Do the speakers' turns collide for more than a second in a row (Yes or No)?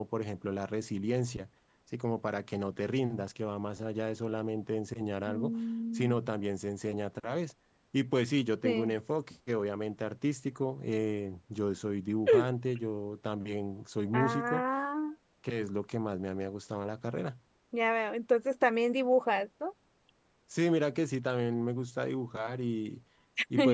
No